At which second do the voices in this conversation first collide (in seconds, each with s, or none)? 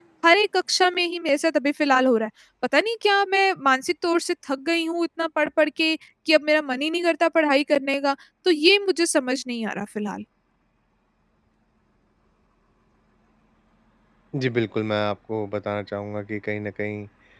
none